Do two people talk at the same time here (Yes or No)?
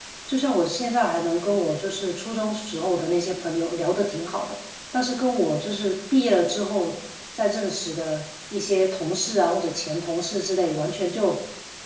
No